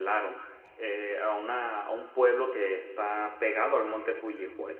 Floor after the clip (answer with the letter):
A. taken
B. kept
B